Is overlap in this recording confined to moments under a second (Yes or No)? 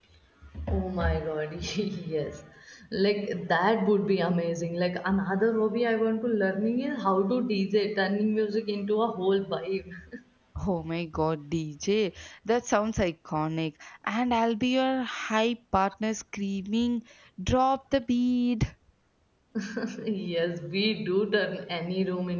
Yes